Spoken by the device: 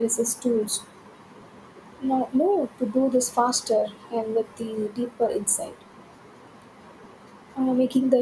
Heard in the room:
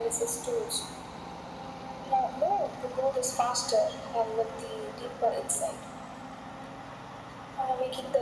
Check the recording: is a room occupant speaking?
No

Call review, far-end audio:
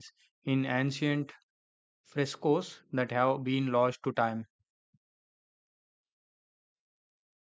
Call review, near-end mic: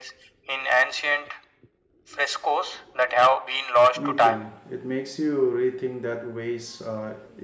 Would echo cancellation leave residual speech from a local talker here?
Yes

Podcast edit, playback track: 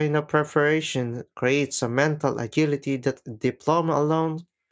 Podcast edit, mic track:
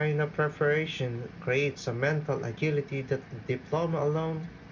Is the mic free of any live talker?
Yes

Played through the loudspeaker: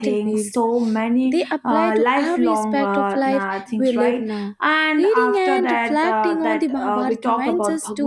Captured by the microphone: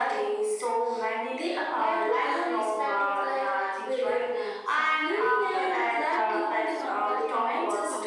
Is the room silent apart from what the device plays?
No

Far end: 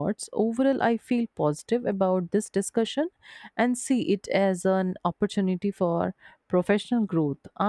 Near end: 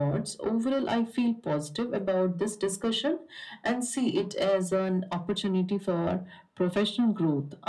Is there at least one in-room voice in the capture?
No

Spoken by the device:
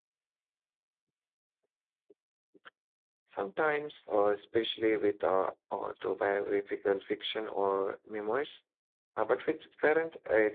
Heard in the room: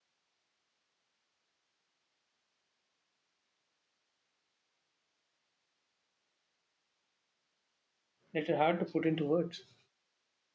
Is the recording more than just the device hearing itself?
Yes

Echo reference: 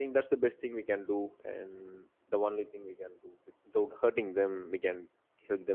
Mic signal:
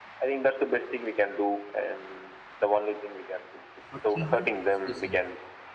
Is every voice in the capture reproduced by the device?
No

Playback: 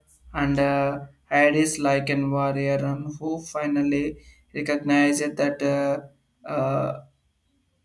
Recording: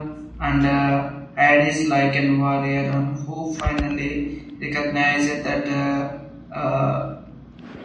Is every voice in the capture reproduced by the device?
Yes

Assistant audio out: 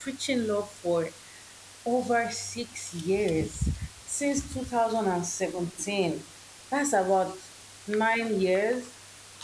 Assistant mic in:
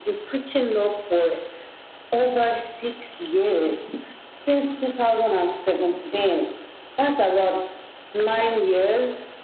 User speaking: No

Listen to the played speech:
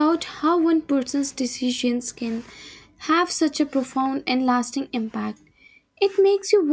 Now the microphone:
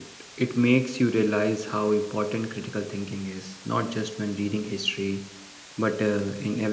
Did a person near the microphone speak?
Yes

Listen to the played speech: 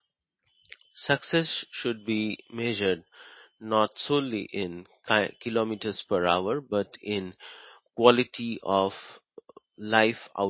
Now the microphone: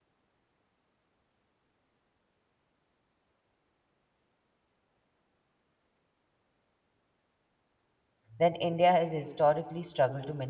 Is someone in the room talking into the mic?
Yes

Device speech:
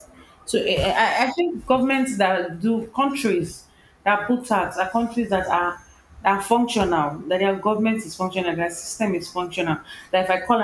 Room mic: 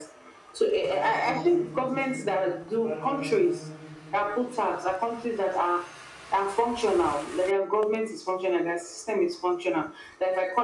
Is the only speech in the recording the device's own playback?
No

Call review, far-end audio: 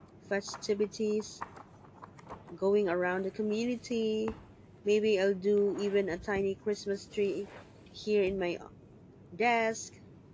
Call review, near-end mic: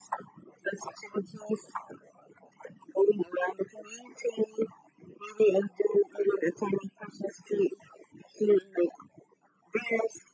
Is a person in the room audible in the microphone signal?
No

